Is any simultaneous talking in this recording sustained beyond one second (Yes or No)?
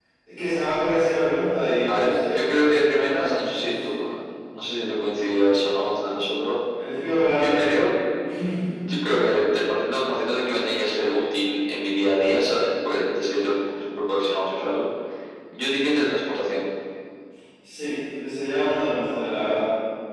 Yes